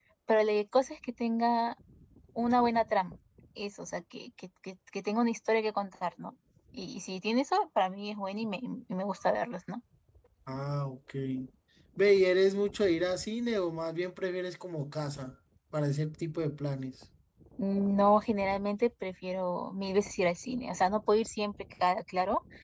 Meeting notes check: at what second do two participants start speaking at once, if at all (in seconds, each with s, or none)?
none